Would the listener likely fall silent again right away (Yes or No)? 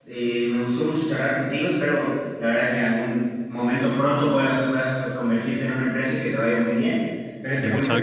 Yes